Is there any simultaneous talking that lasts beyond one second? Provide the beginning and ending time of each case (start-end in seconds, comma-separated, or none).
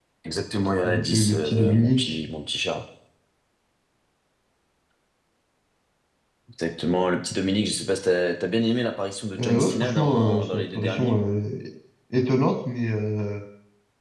0.8-2.2, 9.4-11.2